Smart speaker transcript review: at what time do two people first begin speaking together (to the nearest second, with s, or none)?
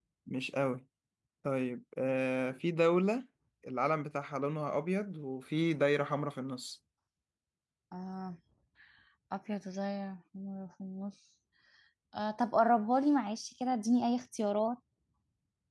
none